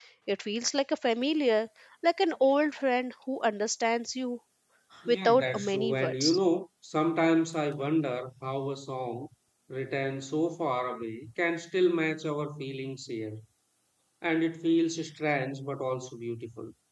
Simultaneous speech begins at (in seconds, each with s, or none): 5.1 s